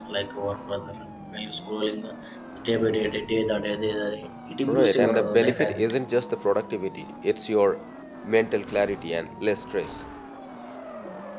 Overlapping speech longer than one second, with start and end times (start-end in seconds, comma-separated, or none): 4.7-5.9